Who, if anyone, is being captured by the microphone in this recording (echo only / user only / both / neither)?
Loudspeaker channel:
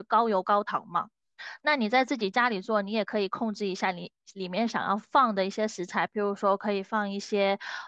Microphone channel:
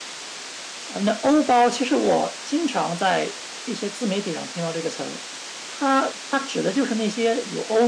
user only